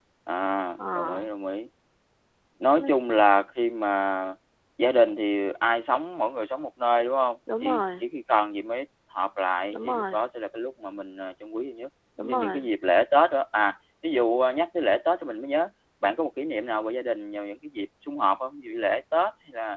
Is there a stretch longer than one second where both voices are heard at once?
No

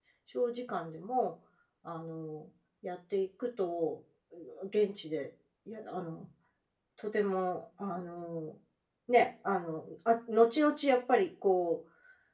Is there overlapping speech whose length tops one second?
No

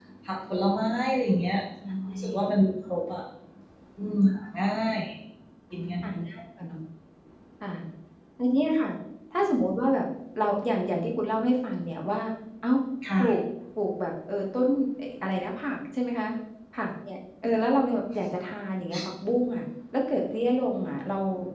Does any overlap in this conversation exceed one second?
No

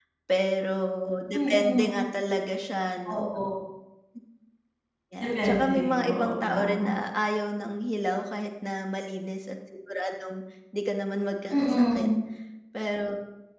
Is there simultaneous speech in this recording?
Yes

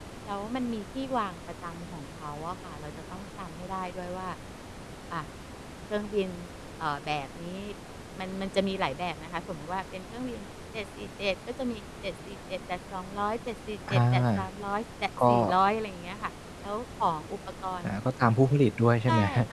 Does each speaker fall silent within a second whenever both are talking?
Yes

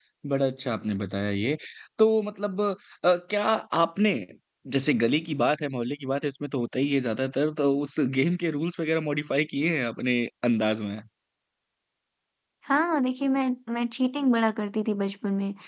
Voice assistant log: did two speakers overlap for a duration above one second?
No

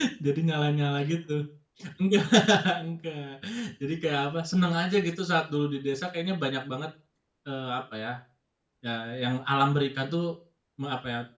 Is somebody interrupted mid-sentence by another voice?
No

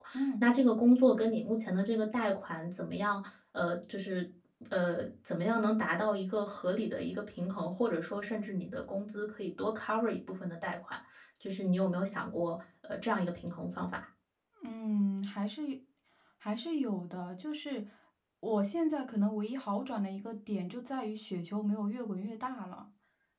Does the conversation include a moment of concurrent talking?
No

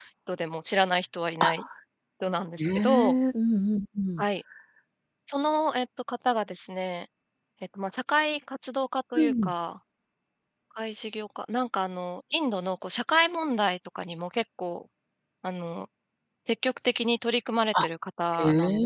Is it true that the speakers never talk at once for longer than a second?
Yes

